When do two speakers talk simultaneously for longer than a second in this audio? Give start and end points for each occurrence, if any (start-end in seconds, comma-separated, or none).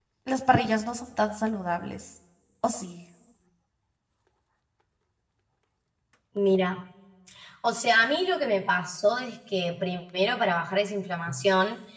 none